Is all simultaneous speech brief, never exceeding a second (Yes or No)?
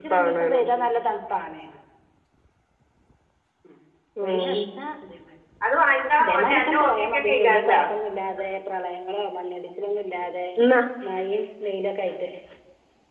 No